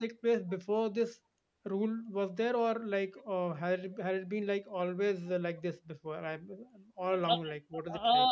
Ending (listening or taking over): taking over